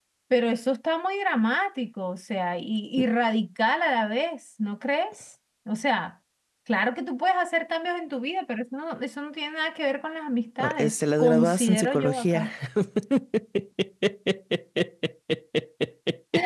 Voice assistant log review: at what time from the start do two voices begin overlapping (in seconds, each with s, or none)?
10.6 s